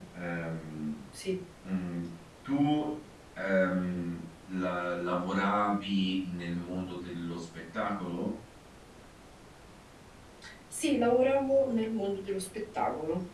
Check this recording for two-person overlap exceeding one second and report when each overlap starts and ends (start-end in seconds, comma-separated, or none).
none